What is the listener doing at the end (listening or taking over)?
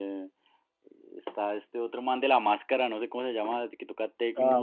taking over